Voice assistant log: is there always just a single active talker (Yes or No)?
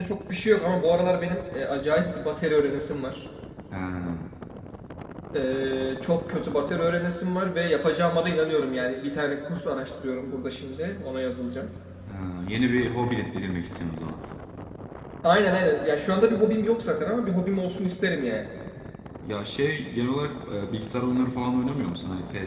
Yes